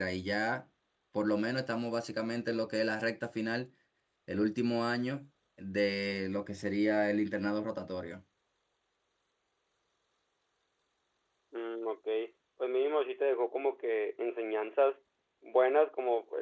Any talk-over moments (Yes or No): No